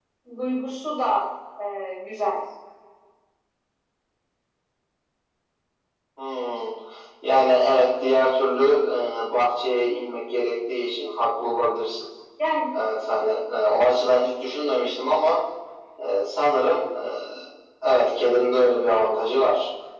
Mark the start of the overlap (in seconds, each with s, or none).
none